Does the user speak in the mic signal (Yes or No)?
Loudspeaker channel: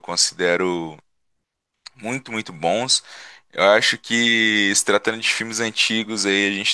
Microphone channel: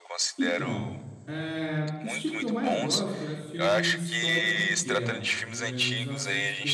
Yes